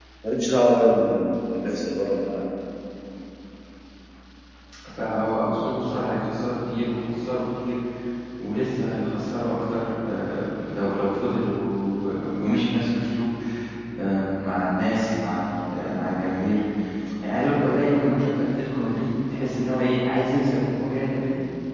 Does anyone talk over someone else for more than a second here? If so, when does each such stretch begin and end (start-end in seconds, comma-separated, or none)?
none